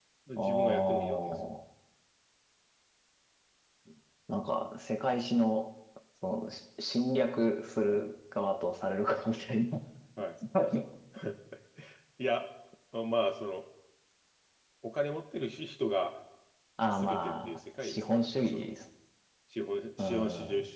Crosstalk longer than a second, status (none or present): present